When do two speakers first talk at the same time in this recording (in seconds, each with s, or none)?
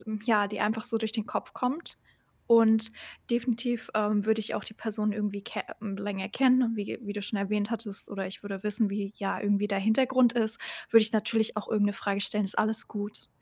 none